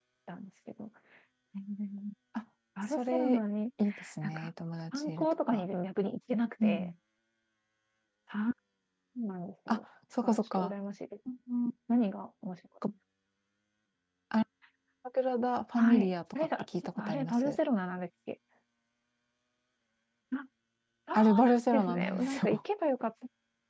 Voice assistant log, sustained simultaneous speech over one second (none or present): present